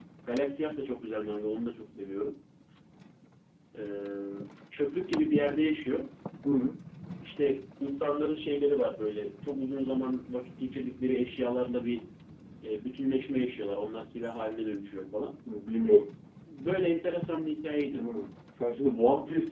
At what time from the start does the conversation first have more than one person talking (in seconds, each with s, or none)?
none